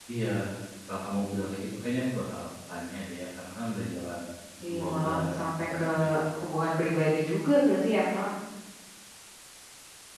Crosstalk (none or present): present